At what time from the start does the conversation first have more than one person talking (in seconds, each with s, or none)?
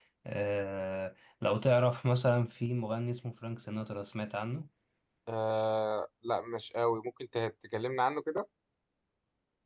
none